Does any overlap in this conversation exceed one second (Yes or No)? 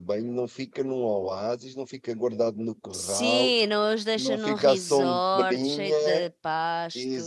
Yes